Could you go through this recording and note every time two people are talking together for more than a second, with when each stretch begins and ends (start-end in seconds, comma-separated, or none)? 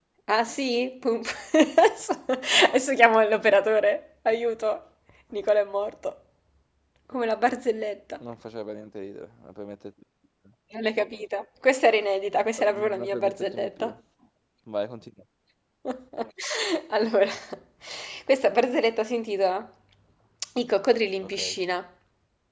12.6-13.9